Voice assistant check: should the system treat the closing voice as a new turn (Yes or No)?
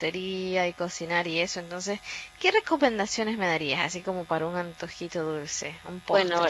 Yes